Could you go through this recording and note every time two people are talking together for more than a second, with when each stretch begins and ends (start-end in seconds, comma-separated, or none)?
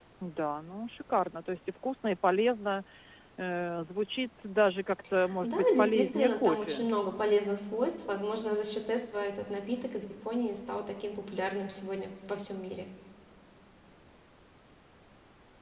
5.4-6.9